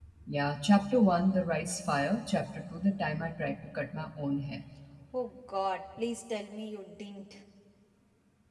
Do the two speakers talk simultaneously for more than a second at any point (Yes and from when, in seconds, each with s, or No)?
No